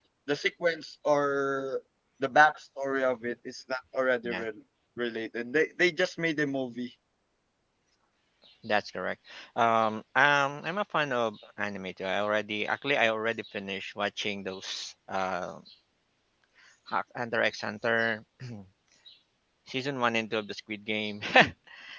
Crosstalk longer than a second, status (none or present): none